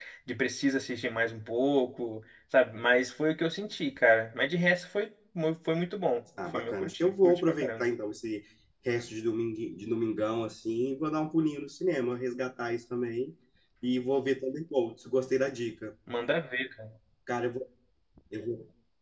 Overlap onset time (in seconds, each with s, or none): 6.4 s